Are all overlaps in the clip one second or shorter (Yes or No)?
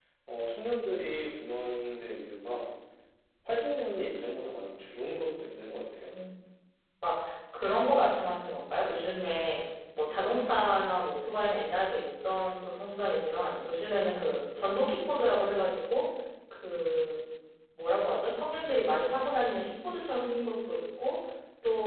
Yes